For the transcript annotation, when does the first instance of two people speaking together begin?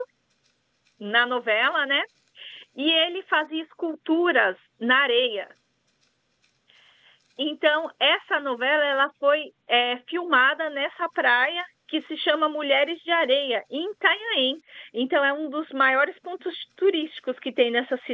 none

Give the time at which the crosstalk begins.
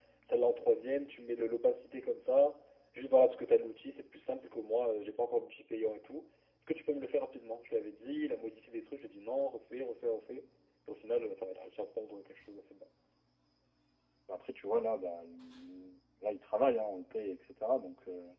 none

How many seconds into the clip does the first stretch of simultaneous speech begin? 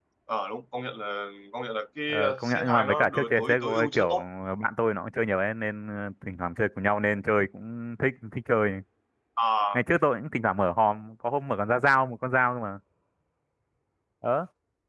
2.1 s

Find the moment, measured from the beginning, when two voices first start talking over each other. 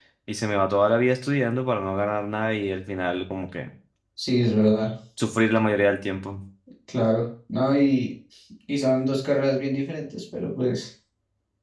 none

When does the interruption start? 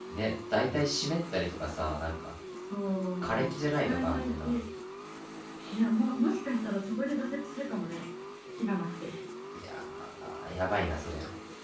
3.2 s

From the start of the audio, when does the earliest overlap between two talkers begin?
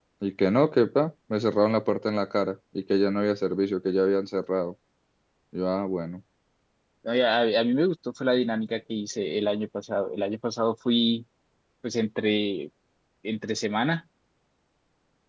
none

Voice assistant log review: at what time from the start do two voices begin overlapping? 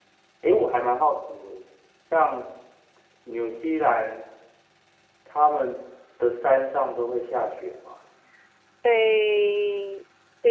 none

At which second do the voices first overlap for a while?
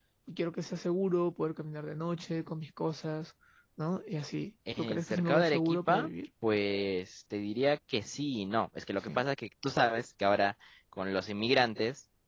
4.8 s

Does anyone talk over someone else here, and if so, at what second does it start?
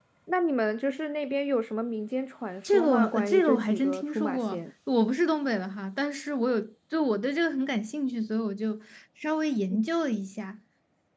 2.6 s

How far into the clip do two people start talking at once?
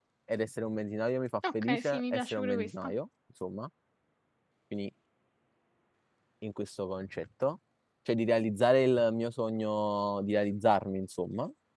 1.4 s

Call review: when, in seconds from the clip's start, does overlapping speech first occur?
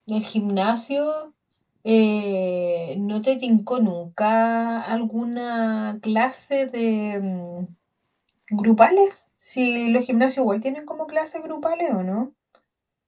none

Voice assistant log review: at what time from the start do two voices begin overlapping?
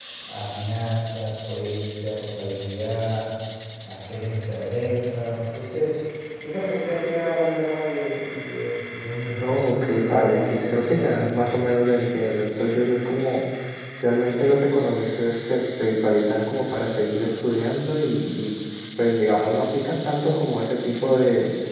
9.4 s

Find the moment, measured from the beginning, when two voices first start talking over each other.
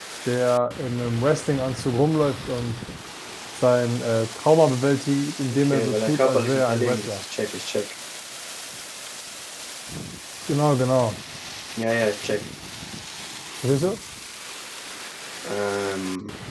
5.6 s

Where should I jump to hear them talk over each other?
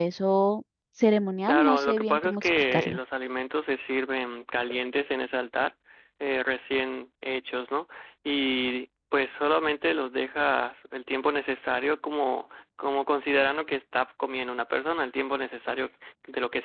1.5 s

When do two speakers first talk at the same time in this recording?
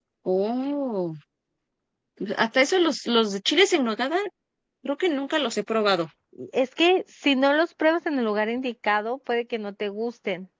none

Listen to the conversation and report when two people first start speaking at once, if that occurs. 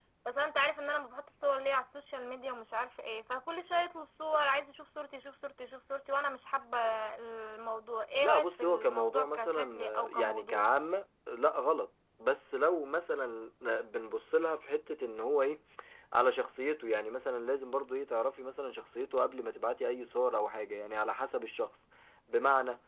8.2 s

